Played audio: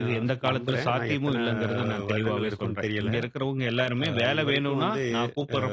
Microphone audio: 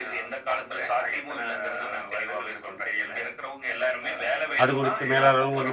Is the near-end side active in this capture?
Yes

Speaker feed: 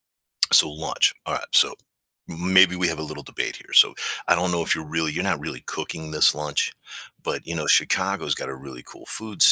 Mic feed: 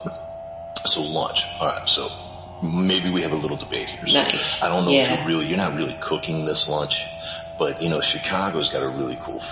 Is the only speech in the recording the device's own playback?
No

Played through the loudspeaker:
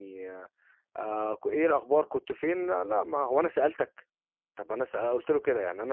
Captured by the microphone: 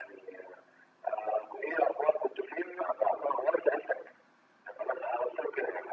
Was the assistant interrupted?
No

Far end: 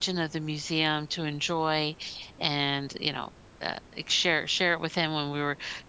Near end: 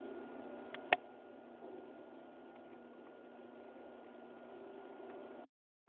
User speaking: No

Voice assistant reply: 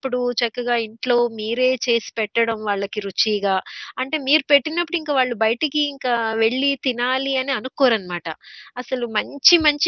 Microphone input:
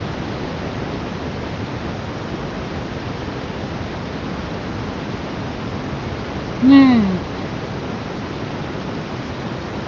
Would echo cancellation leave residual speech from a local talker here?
Yes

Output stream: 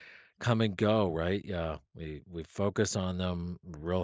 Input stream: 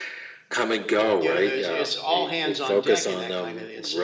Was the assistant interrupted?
Yes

